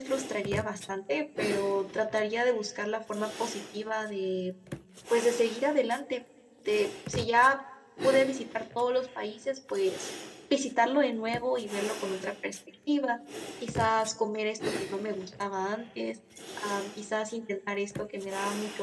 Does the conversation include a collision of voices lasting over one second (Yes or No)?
No